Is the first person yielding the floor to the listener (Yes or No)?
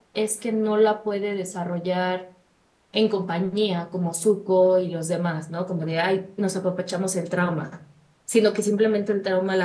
No